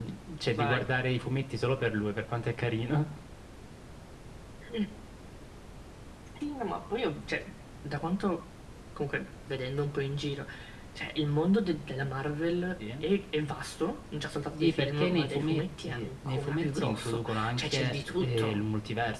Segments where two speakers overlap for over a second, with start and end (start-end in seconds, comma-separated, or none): 14.6-18.6